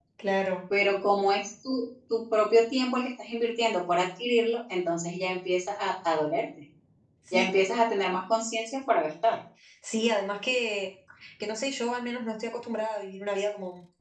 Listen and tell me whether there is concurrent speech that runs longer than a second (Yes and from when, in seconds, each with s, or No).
No